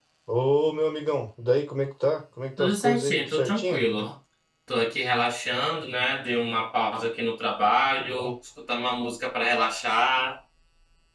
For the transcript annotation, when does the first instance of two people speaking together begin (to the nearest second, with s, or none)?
3 s